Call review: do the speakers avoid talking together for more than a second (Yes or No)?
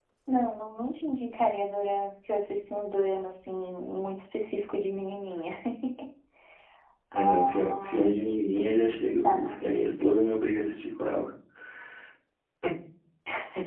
No